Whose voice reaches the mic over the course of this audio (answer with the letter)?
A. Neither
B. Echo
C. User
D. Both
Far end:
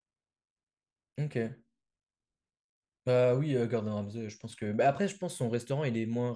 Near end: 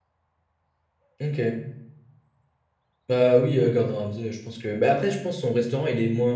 B